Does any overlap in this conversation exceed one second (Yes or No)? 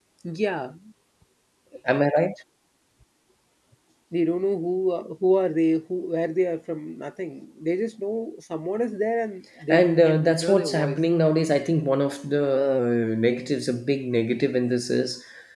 Yes